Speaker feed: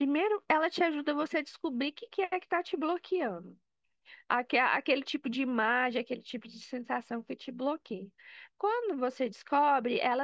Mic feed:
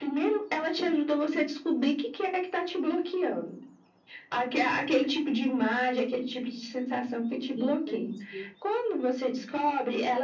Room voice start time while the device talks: 7.5 s

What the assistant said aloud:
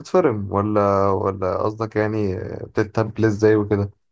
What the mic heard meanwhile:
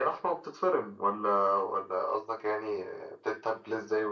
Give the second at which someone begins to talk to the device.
none

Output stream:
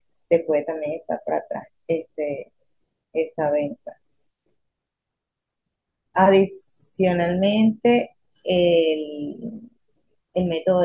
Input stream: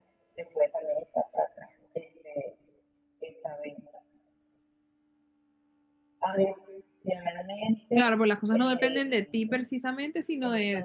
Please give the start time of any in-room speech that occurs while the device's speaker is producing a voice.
7.9 s

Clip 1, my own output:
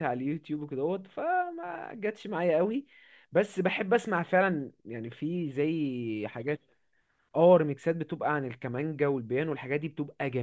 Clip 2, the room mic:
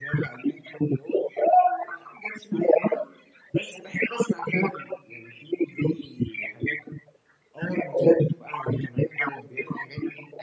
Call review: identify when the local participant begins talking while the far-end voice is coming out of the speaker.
none

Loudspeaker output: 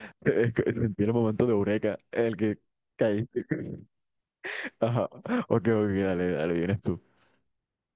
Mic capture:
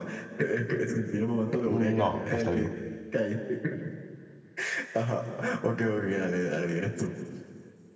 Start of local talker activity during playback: 1.6 s

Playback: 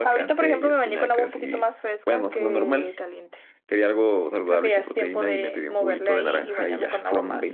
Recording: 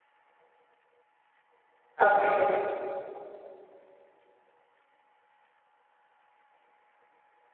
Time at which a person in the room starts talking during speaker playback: 2.0 s

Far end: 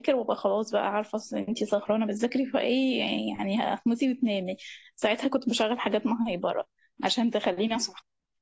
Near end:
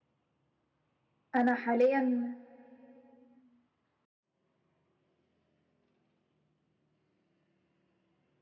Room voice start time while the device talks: 1.3 s

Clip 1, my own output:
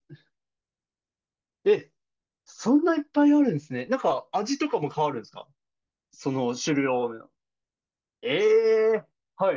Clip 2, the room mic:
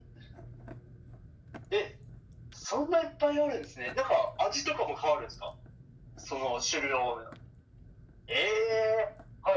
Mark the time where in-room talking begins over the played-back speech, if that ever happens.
none

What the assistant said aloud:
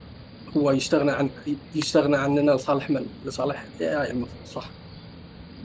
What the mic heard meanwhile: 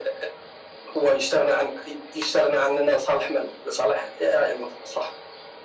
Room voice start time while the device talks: none

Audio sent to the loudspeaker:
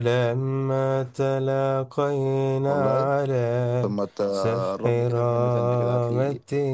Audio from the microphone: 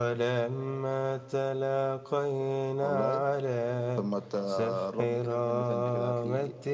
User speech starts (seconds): none

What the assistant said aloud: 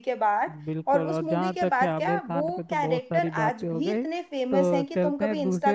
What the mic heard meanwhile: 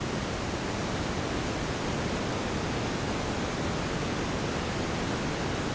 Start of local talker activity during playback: none

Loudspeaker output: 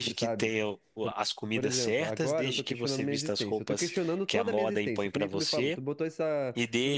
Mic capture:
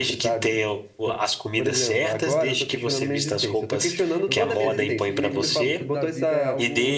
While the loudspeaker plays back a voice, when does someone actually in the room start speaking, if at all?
4.3 s

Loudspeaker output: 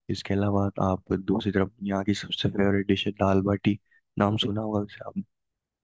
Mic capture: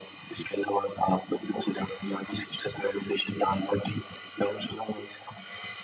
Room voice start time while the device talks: none

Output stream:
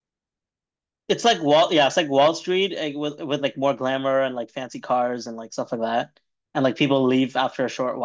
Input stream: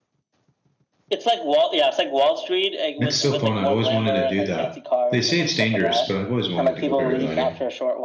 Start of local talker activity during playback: 3.0 s

